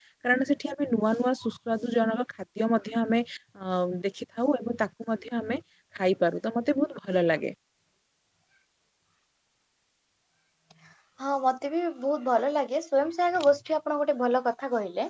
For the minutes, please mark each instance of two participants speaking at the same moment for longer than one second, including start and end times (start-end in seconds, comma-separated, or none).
none